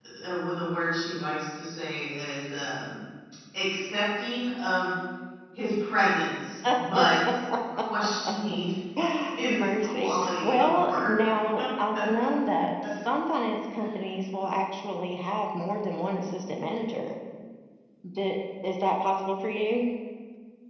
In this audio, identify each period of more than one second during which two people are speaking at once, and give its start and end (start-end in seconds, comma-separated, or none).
9.5-11.1